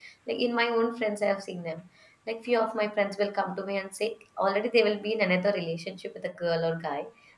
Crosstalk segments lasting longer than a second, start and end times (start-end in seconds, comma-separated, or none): none